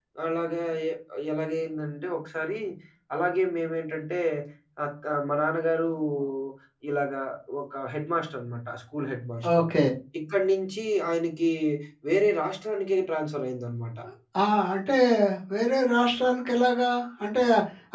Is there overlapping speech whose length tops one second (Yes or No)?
No